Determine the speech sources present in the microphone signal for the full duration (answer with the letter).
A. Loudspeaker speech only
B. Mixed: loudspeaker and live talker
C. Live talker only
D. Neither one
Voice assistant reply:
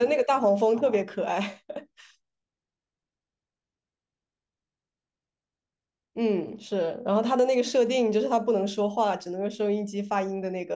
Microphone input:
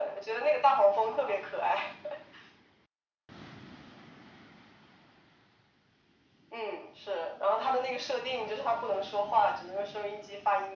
A